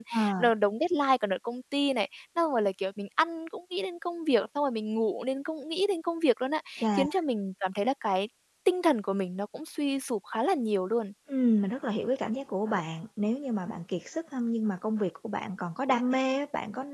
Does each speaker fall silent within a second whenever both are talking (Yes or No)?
Yes